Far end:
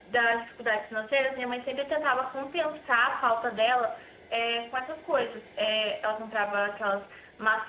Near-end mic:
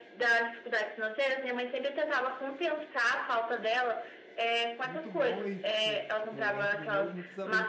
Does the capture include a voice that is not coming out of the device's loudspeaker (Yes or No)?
Yes